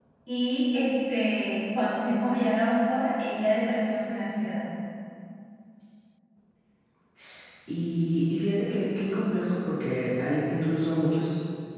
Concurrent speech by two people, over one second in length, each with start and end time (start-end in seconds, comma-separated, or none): none